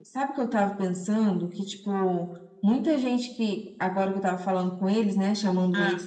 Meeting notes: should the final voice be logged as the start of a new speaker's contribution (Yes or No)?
No